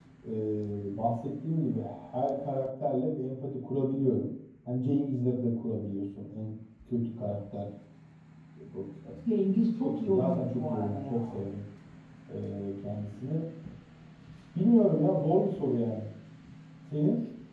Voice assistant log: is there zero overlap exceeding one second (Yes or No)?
No